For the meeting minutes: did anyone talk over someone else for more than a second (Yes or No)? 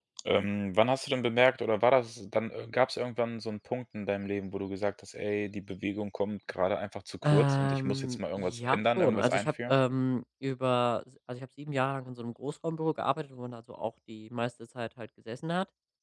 Yes